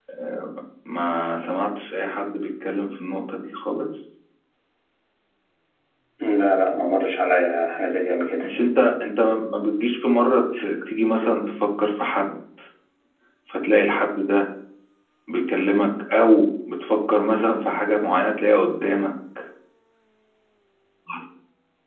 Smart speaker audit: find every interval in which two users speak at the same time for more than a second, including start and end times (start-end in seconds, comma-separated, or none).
none